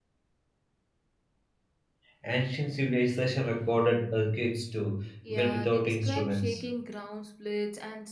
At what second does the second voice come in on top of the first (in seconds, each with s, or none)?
5.2 s